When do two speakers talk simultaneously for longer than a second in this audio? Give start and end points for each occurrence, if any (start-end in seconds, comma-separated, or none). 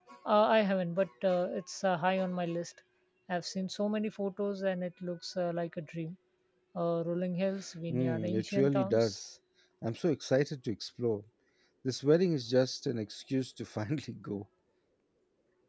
7.9-9.2